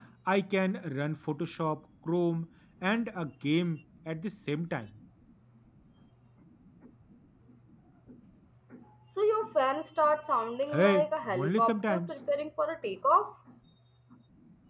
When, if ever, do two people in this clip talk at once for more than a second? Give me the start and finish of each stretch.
10.7-12.1

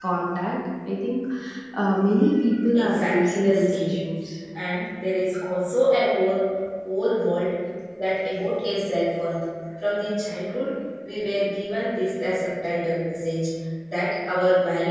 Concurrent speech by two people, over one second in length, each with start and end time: 2.7-4.0

